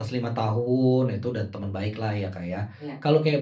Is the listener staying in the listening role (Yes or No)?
Yes